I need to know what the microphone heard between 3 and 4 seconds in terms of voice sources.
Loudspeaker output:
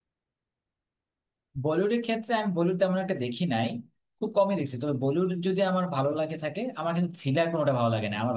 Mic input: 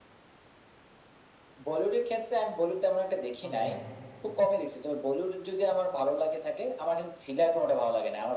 both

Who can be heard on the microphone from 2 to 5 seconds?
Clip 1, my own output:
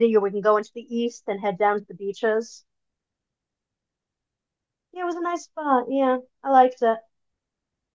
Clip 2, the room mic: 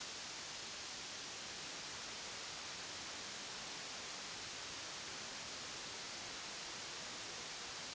neither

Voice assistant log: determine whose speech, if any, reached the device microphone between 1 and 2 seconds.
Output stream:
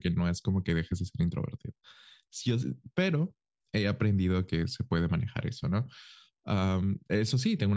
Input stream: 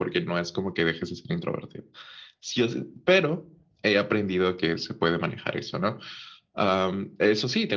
echo only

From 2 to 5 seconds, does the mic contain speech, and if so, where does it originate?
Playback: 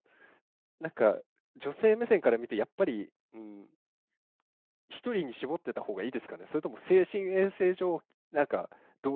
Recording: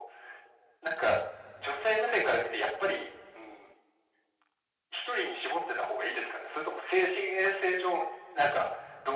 echo only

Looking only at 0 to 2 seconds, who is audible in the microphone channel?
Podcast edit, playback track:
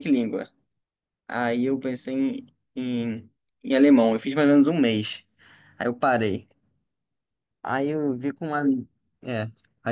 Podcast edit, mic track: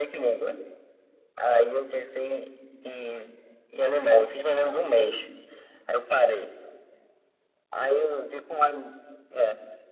echo only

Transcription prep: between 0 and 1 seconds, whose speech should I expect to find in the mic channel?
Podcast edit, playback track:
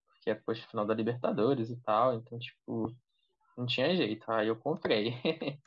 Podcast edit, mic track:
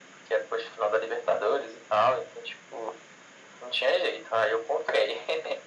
echo only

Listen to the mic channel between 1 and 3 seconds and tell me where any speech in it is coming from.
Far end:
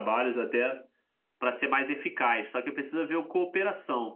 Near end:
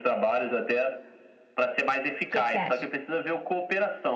both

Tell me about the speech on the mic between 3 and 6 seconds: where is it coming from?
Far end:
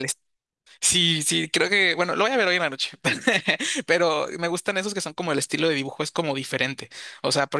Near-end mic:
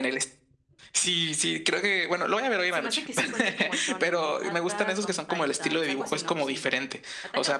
both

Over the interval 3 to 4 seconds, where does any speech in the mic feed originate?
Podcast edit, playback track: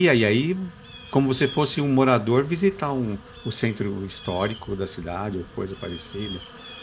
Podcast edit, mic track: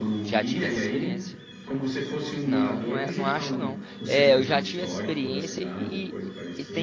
both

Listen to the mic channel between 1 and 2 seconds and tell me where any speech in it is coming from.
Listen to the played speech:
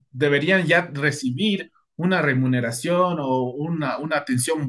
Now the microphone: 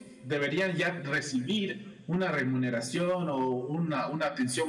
echo only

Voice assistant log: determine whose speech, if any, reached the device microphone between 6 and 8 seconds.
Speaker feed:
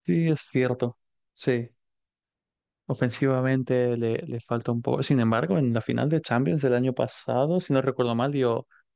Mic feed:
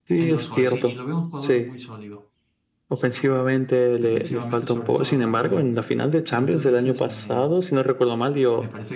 both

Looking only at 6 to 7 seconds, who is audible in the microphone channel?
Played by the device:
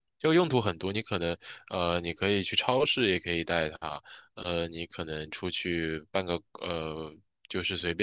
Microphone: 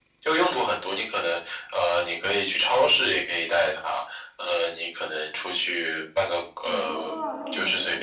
both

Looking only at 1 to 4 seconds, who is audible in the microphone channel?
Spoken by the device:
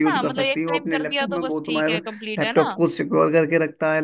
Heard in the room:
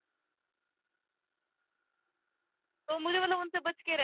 user only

